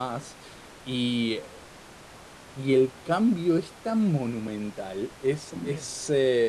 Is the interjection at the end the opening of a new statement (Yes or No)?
No